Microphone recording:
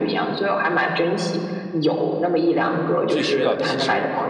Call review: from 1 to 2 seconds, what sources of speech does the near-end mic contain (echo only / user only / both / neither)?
echo only